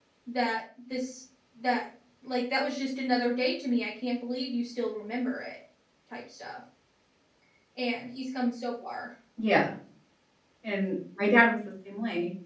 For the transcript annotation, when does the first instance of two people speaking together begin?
none

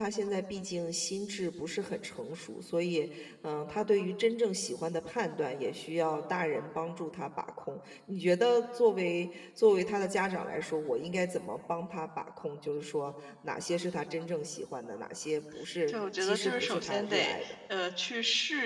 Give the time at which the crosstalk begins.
16 s

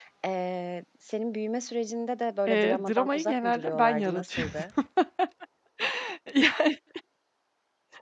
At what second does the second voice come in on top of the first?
2 s

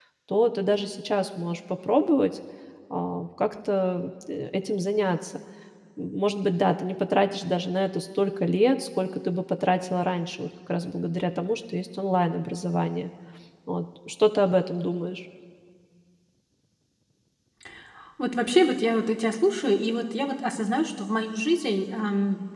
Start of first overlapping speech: none

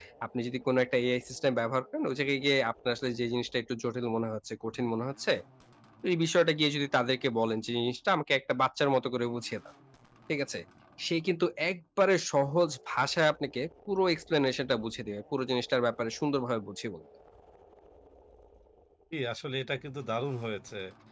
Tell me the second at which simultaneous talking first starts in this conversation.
none

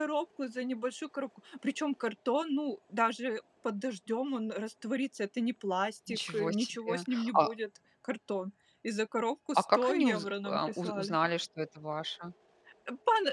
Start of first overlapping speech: 6 s

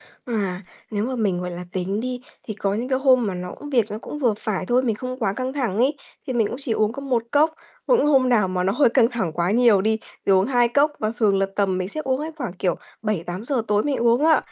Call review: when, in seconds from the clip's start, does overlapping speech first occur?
none

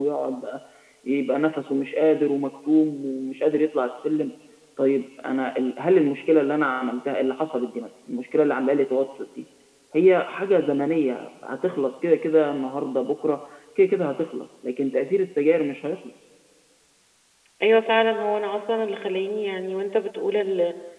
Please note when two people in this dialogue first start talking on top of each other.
none

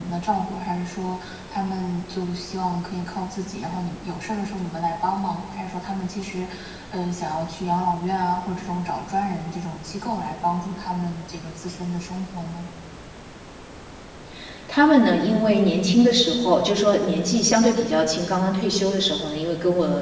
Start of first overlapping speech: none

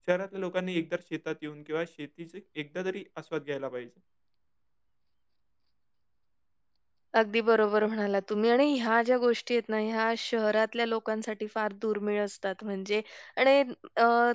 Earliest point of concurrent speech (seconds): none

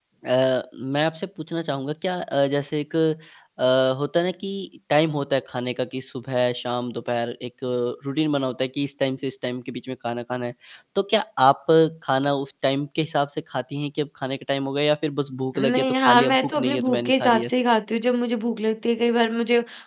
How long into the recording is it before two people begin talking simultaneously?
16 s

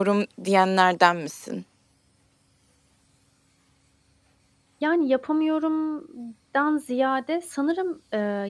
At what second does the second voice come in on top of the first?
none

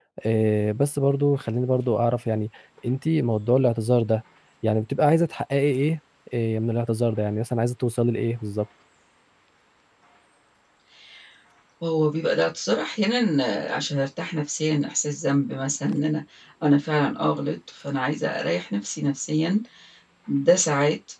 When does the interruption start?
none

